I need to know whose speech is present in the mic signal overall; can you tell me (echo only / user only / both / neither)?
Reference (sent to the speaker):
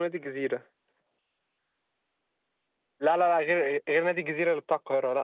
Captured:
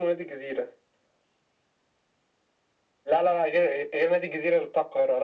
echo only